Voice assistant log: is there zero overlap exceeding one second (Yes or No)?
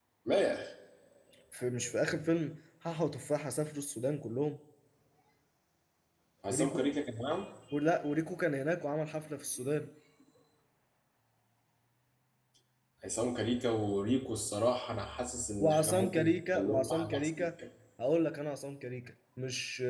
No